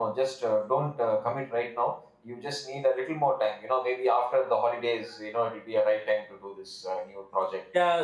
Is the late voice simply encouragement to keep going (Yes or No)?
No